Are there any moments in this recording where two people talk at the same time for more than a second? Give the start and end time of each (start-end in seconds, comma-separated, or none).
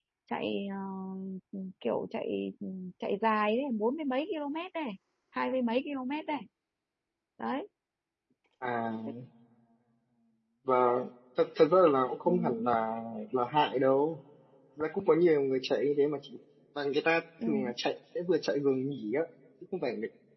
none